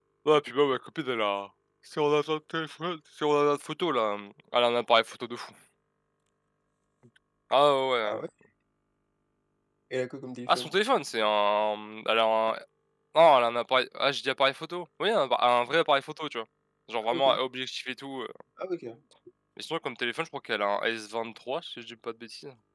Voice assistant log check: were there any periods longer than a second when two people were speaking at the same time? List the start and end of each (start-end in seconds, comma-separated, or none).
none